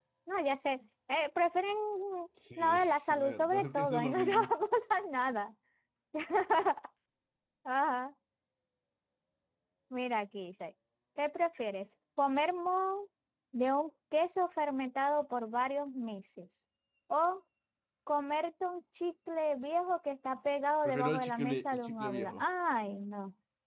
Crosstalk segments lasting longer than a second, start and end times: 2.6-4.5, 20.8-22.4

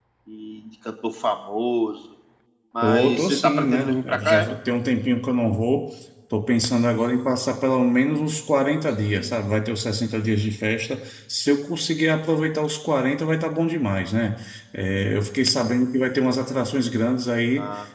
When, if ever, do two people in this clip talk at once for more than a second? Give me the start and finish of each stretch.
2.8-4.5

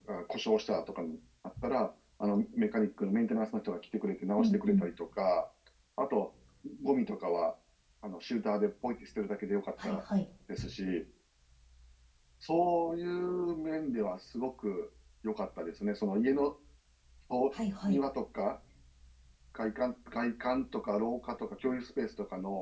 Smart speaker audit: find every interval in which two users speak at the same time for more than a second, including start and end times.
none

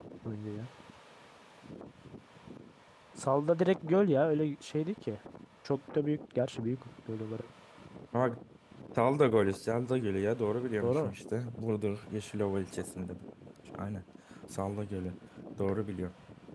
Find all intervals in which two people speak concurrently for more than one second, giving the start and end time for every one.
none

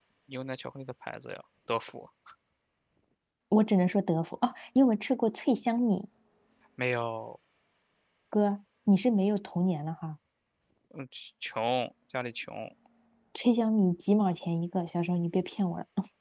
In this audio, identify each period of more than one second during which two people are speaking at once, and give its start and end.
none

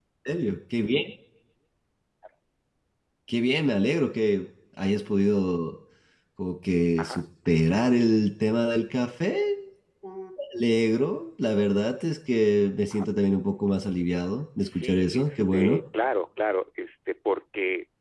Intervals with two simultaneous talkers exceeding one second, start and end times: 14.6-15.8

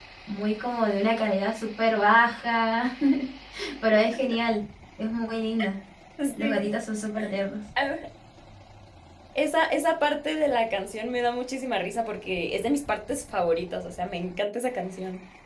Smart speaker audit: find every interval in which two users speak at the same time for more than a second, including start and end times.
none

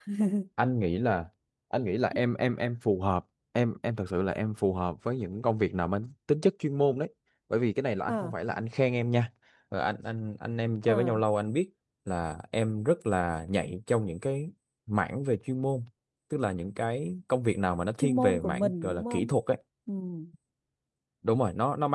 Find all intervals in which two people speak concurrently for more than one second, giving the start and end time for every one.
18.0-19.3

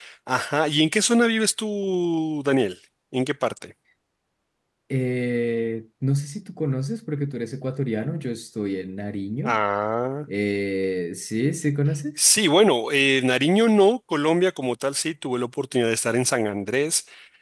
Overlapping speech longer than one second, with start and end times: none

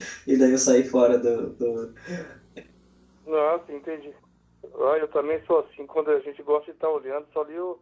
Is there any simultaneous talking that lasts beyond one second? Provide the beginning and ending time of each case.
none

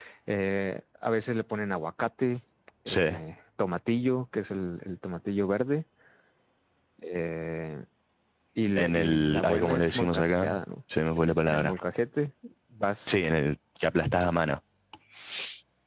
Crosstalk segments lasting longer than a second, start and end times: 8.8-10.5

